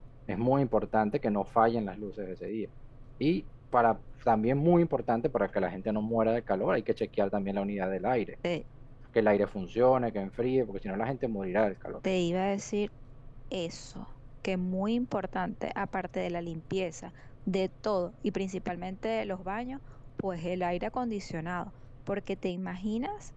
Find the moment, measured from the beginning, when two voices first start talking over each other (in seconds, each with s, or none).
none